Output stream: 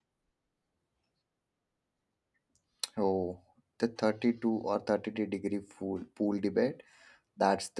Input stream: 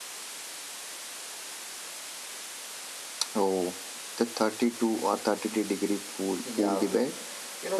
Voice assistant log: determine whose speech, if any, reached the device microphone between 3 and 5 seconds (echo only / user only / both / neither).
echo only